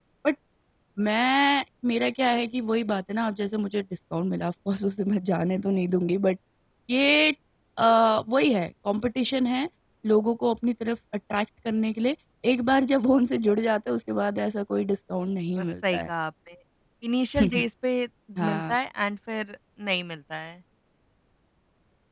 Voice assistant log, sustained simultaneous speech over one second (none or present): none